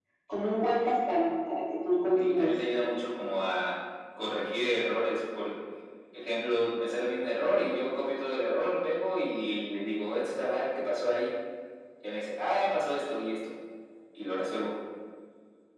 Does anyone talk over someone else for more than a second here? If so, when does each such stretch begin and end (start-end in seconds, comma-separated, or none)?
none